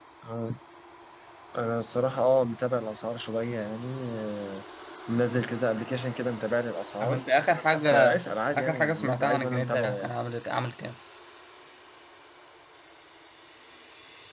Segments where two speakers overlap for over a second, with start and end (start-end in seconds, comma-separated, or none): 8.5-10.1